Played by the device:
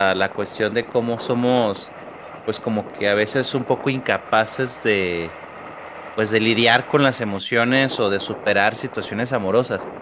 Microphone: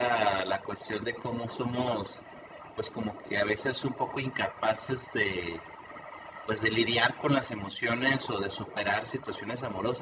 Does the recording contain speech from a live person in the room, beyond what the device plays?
No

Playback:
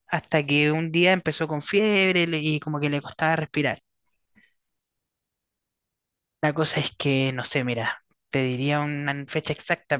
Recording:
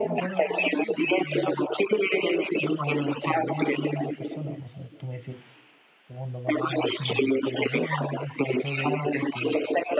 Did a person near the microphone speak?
Yes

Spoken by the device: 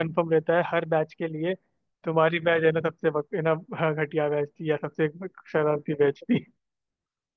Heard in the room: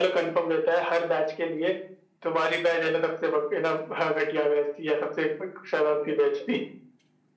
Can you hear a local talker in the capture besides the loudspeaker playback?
No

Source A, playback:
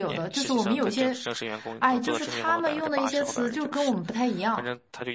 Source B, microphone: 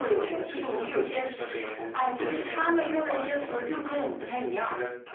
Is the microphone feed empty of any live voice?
Yes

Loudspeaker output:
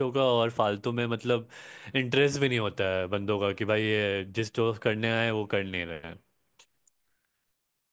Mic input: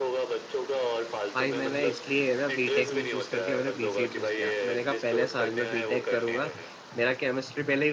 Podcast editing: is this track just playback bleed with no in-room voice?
No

